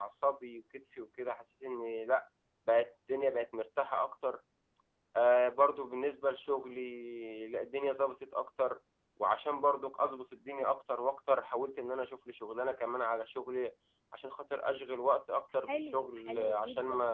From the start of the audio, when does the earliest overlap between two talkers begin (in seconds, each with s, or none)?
15.7 s